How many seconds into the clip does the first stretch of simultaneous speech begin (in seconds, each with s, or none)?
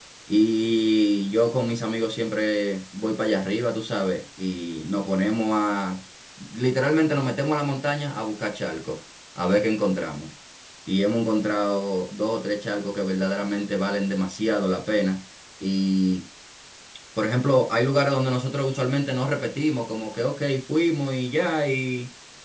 none